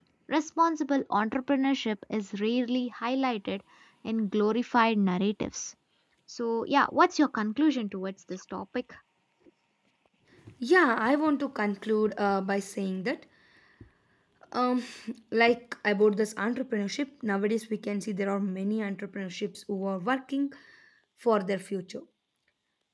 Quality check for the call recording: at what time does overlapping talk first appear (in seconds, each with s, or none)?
none